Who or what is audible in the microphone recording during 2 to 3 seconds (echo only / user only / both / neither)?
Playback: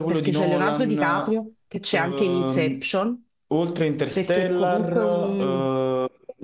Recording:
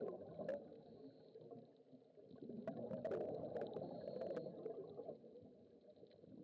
neither